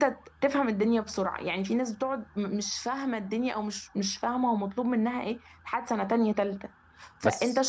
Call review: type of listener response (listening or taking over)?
listening